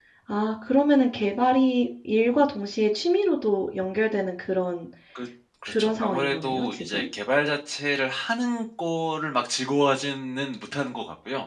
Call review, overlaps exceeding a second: present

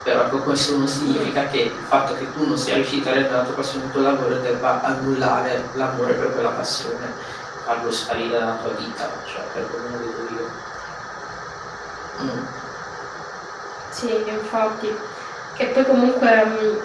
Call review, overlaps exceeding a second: none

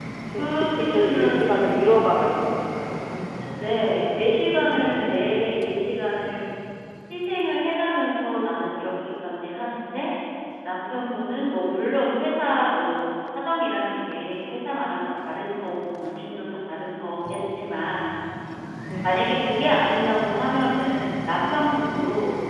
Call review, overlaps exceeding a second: present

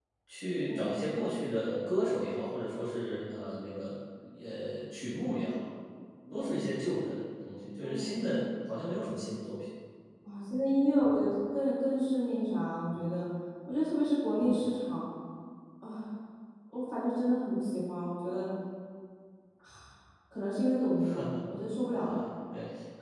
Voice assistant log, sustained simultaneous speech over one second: none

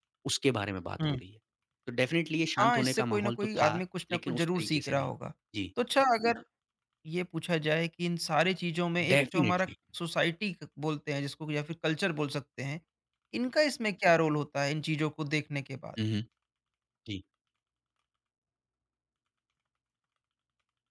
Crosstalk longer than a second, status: present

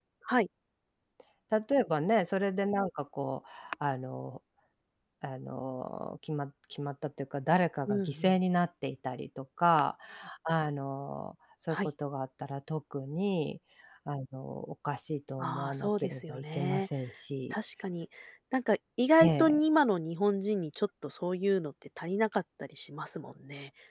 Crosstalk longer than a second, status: present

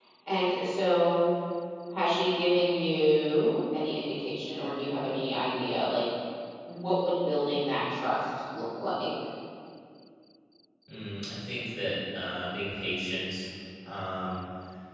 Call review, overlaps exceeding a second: none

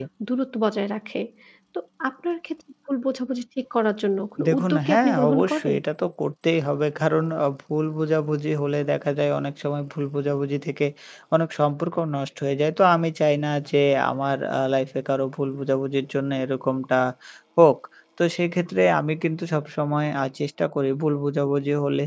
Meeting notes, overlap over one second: present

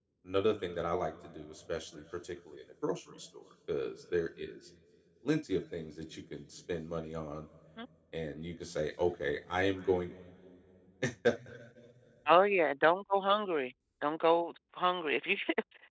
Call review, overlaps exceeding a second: none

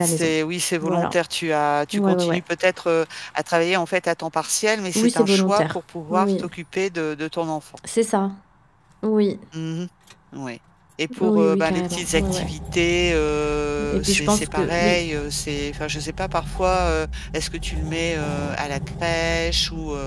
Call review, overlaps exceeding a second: present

